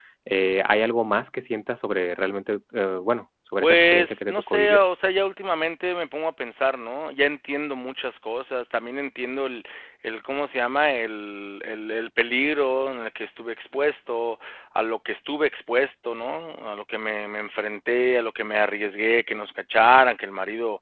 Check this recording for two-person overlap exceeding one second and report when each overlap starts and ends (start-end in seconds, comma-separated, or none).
3.6-4.8